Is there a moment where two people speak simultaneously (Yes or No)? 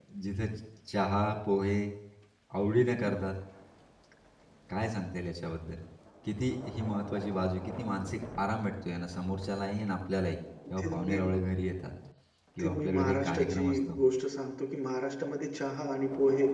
Yes